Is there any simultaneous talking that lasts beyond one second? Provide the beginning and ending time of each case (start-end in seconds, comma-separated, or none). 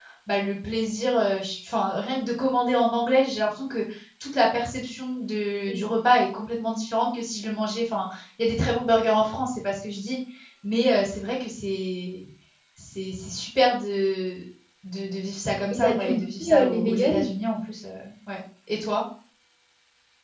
15.7-17.2